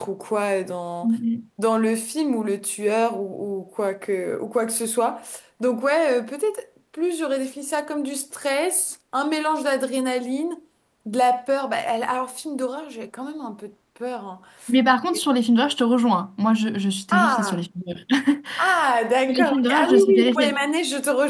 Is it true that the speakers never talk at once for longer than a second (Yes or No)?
No